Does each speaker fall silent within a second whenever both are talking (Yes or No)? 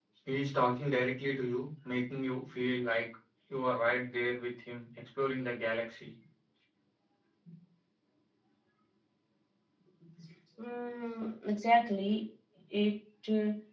Yes